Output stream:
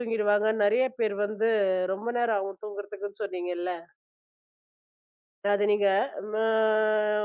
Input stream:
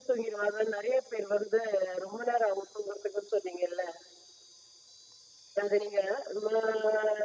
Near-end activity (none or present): none